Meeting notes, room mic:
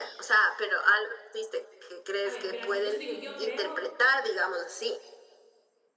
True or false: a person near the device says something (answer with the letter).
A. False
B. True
B